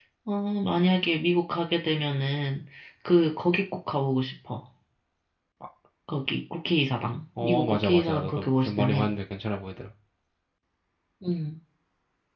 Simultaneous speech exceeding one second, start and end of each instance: 7.4-9.0

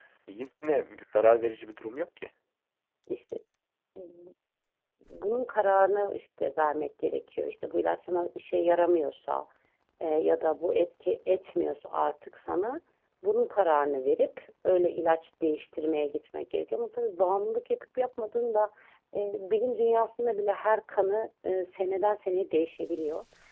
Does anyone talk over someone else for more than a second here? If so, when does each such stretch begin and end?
none

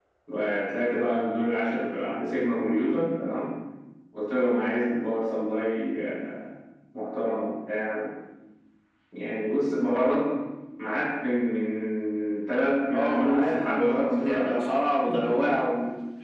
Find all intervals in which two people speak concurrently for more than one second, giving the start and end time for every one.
12.9-14.5

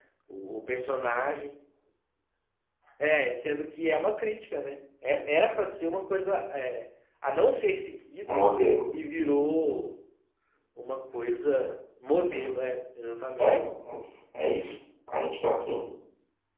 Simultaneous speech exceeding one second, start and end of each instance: none

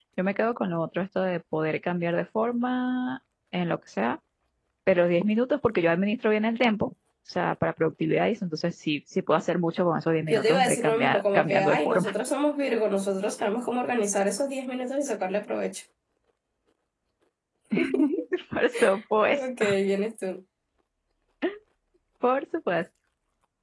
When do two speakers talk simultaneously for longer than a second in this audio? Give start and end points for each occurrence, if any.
10.3-12.1

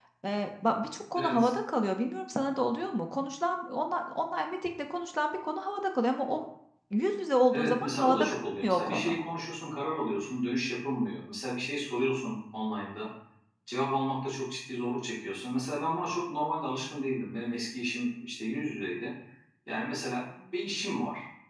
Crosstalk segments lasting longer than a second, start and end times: 7.5-9.2

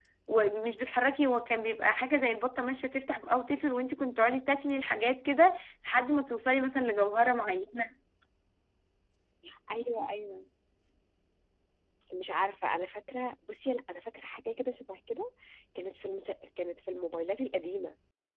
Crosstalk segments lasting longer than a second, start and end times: none

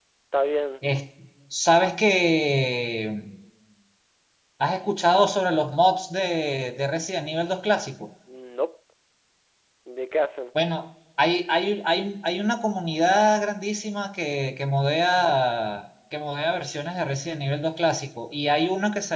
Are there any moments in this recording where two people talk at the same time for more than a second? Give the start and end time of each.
none

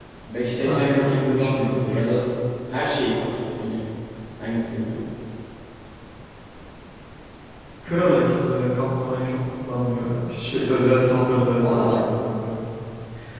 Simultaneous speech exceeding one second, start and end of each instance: 0.6-2.0

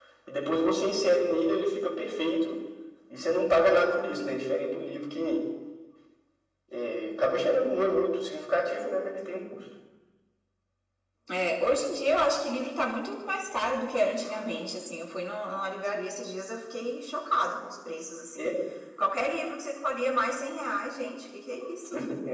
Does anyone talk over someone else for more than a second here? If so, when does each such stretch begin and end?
none

